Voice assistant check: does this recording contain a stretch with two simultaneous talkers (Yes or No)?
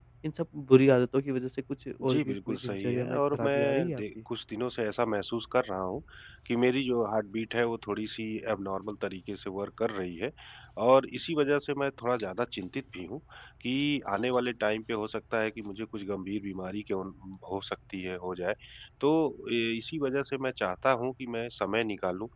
Yes